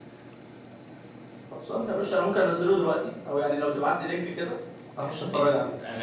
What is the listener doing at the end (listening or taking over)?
taking over